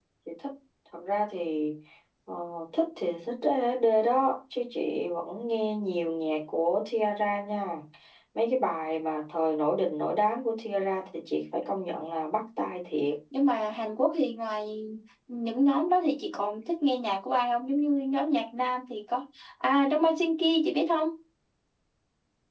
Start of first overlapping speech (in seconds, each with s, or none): none